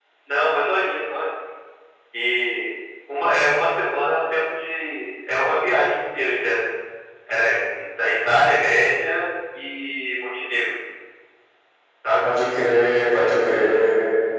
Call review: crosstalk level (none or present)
none